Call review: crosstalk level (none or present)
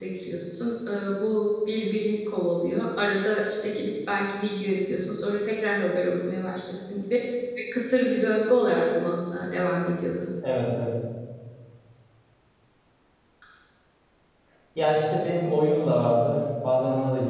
none